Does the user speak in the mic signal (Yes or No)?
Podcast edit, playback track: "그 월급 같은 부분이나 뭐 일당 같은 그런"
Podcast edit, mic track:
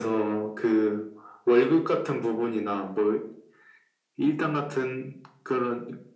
No